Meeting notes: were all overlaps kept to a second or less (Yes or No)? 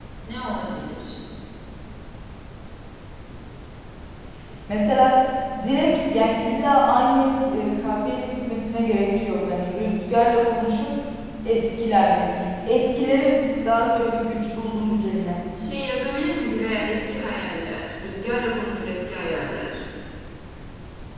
Yes